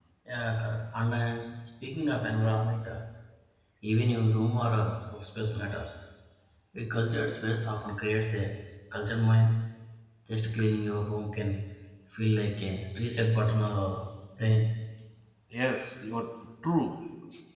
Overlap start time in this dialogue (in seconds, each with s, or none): none